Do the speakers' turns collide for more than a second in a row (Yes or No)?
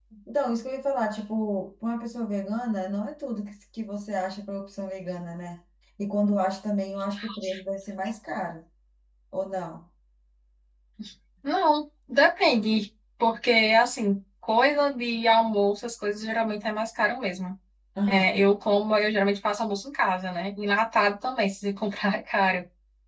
No